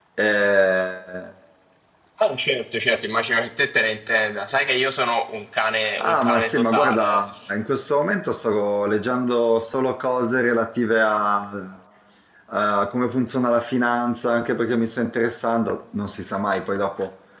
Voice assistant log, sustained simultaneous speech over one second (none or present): present